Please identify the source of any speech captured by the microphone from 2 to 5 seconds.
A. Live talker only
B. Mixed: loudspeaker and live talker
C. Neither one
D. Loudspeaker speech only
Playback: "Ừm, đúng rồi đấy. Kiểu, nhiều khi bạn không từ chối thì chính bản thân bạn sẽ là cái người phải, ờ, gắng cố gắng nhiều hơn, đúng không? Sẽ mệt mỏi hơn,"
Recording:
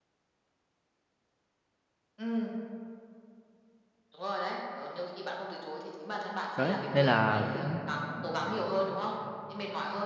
D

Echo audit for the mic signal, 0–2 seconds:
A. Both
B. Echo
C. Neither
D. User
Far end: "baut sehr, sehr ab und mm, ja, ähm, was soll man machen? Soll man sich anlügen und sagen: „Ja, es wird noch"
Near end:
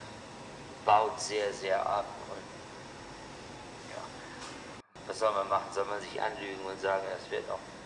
B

